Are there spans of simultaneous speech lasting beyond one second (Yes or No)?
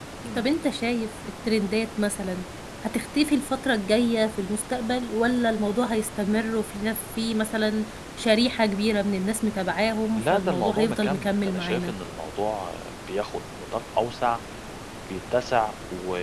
Yes